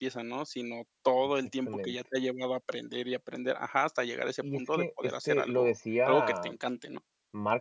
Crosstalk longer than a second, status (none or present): present